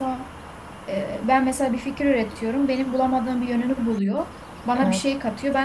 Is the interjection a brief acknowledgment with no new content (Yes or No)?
Yes